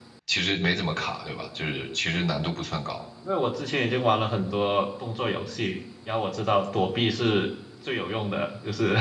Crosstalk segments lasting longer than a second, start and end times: none

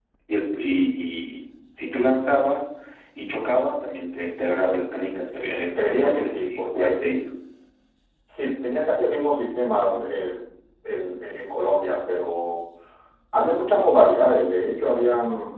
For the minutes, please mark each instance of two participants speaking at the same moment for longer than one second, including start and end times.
5.8-7.0

